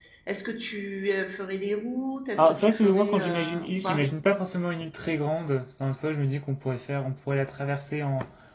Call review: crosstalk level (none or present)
present